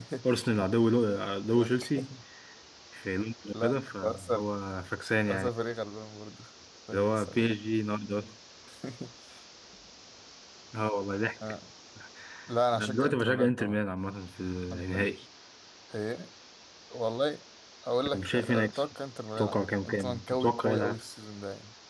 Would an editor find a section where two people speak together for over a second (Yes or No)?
Yes